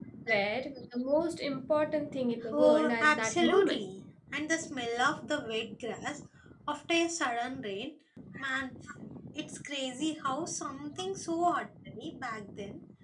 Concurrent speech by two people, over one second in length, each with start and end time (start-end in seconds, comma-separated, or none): 2.5-3.8